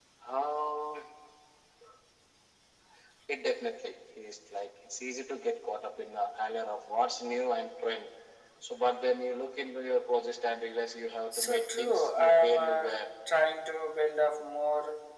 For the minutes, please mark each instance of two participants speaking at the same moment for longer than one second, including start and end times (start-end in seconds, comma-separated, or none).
11.4-12.9